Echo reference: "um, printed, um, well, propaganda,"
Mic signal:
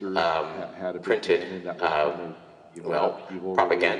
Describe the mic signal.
both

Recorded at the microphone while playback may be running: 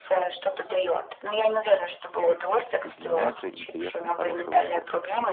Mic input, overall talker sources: both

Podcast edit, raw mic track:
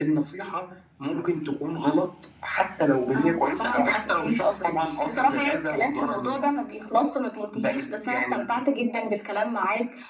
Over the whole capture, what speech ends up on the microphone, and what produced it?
echo only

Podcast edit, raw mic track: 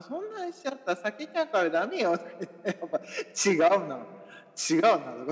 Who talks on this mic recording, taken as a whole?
echo only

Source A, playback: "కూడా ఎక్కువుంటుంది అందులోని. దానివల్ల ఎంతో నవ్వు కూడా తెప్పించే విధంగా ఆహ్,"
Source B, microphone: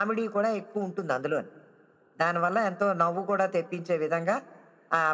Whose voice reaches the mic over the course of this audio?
echo only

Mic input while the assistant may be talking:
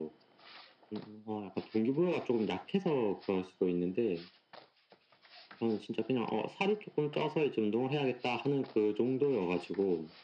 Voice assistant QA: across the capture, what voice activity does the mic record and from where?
echo only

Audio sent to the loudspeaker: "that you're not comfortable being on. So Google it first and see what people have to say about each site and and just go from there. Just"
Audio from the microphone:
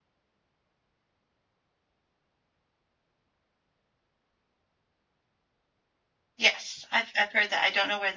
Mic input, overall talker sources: user only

